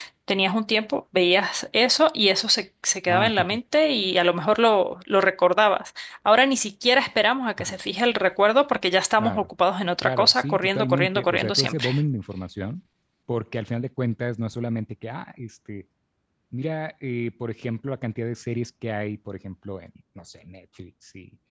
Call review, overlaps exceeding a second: present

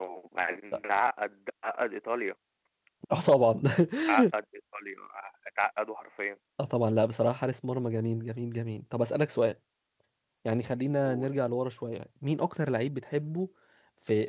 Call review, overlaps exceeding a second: none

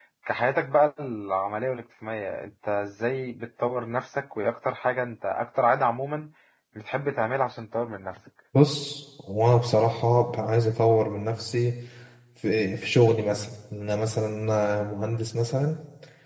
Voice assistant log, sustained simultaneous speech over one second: none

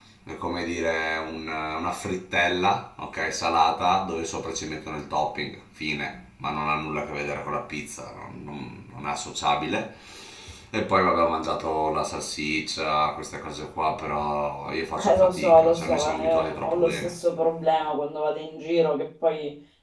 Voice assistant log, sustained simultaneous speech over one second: present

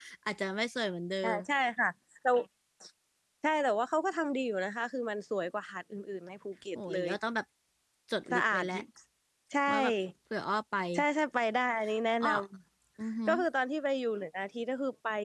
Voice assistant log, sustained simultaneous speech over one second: none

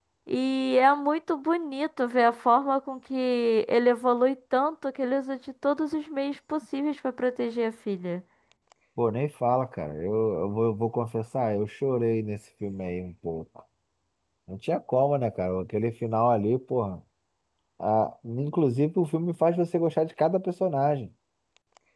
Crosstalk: none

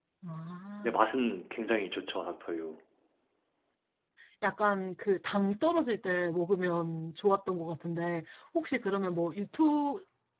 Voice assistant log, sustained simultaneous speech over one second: none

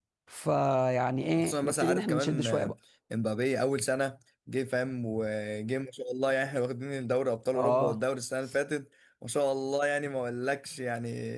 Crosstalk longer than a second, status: present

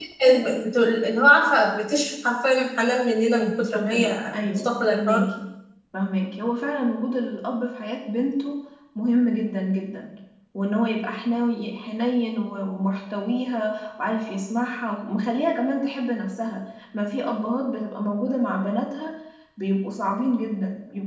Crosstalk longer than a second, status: present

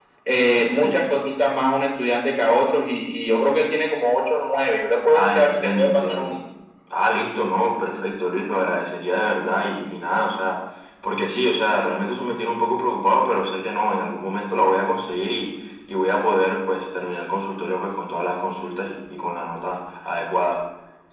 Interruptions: present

